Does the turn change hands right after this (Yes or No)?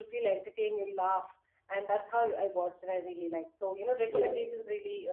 No